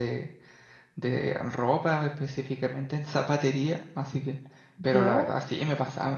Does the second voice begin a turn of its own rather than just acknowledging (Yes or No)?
No